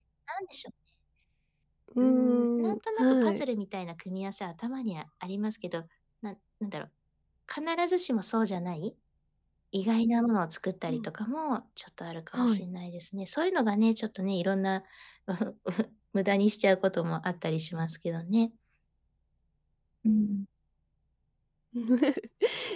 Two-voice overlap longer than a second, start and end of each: 2.0-3.4

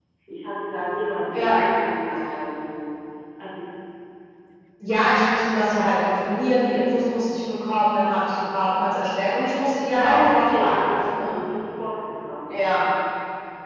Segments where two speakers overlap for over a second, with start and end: 10.0-11.3

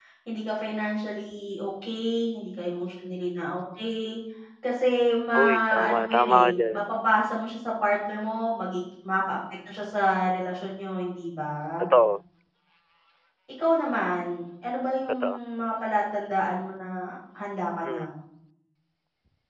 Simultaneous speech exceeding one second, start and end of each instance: 5.3-7.0

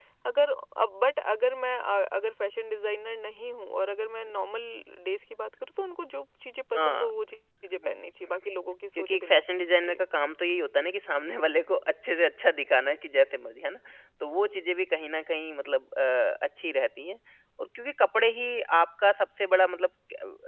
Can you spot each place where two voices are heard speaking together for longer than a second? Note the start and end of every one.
none

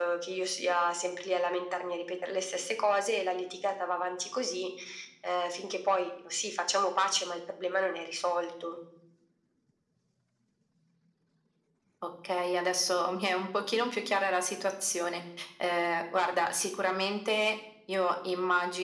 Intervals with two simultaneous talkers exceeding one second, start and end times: none

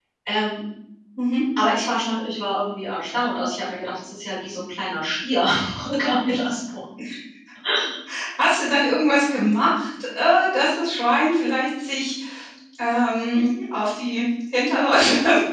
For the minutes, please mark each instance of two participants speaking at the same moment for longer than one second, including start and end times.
none

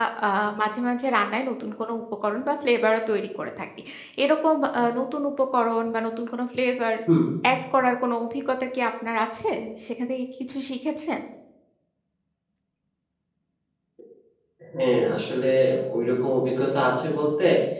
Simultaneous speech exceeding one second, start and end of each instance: none

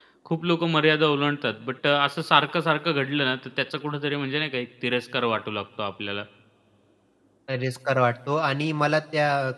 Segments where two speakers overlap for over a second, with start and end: none

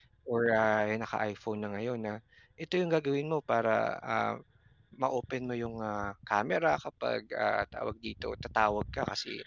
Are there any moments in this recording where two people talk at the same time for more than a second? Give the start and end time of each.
none

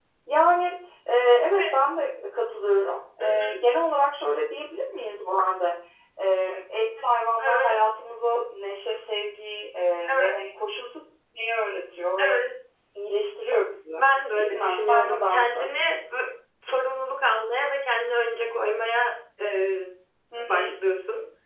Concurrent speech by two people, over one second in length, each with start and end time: 14.3-15.7

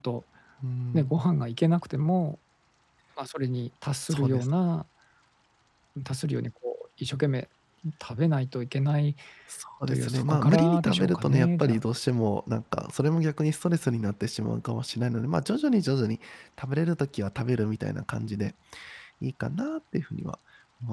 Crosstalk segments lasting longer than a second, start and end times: 9.9-11.8

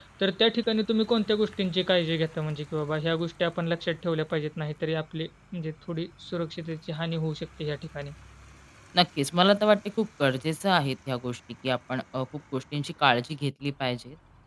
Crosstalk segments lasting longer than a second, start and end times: none

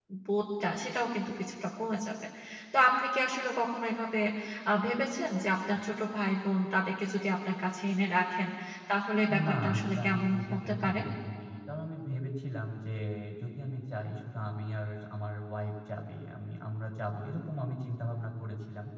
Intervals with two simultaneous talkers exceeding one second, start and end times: 9.4-11.0

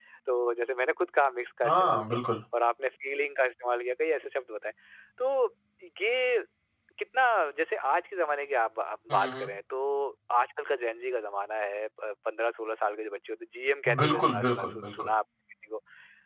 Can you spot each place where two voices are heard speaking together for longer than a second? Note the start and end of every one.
13.9-15.1

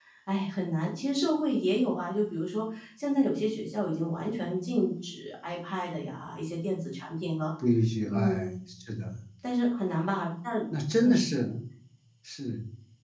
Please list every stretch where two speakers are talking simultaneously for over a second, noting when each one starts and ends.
none

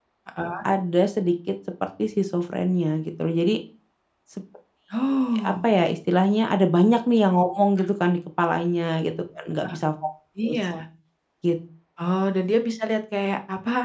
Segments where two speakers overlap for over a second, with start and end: none

